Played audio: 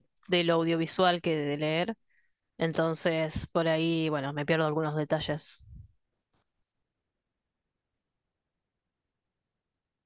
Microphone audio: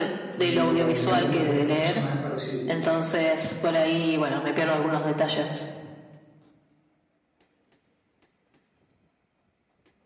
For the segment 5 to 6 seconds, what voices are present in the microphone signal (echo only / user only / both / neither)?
echo only